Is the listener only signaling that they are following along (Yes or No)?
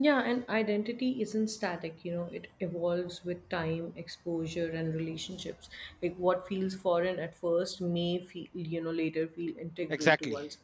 No